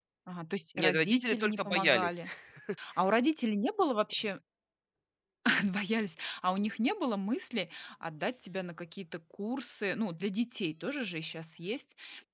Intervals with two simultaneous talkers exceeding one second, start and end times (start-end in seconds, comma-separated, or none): 0.8-2.2